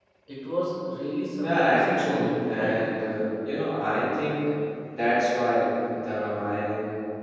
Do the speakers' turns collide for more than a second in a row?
Yes, from 1.4 s

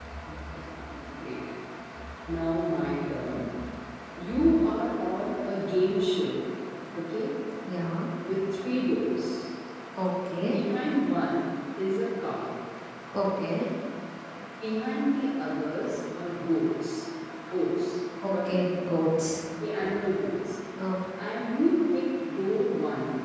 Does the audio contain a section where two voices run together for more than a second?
No

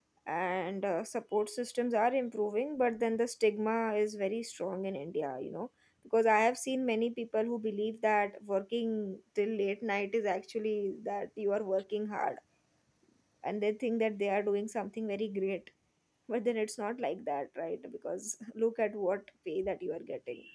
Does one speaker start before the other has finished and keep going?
No

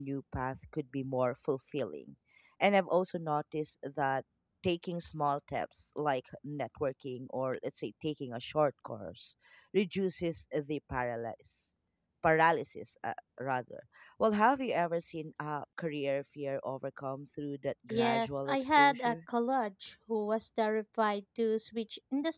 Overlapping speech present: Yes, from 17.9 s

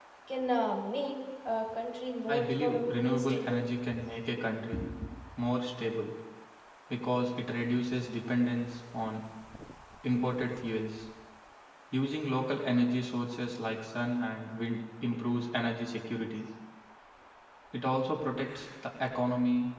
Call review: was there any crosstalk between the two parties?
Yes, from 2.3 s

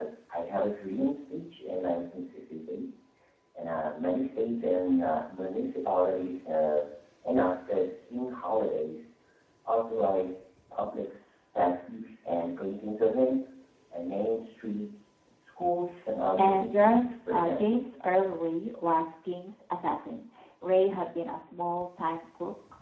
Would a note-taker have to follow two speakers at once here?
Yes, from 16.4 s

